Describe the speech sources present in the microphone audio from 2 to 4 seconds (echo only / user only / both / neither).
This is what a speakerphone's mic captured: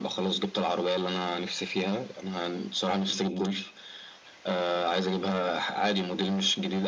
echo only